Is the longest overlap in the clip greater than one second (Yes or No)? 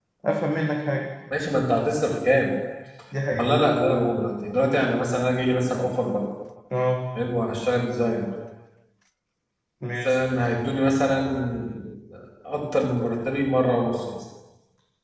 No